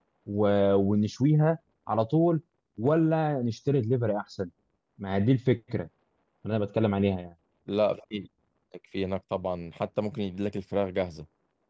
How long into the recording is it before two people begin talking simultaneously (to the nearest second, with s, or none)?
none